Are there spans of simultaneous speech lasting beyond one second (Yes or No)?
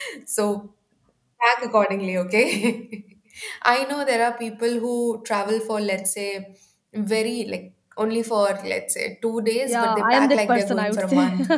Yes